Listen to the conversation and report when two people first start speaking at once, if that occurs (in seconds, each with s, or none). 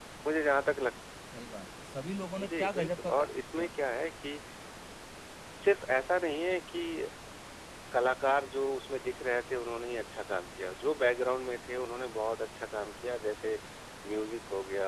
2.4 s